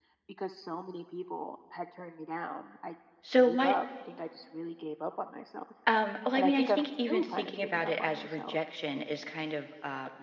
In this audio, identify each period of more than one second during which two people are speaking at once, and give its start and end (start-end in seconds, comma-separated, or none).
6.3-8.6